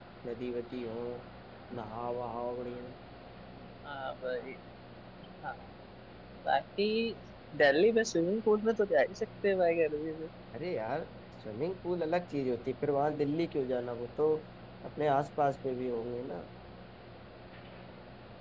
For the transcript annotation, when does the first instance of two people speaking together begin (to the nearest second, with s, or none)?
none